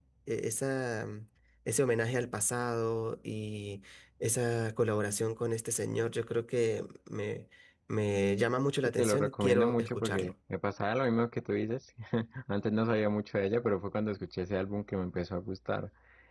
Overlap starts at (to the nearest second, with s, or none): 9 s